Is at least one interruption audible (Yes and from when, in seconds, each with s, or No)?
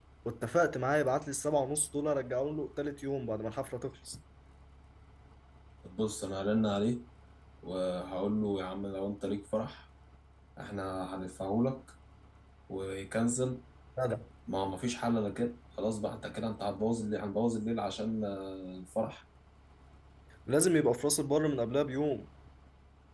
No